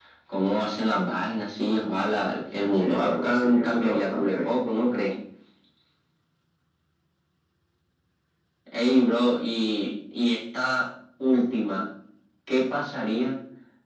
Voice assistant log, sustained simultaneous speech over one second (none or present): present